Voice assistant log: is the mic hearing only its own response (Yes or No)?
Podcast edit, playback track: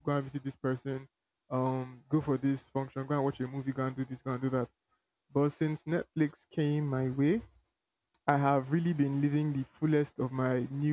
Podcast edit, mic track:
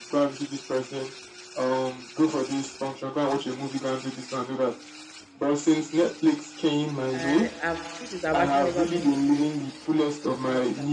No